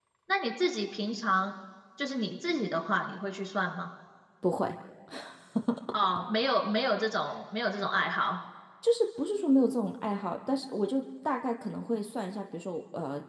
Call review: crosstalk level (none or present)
none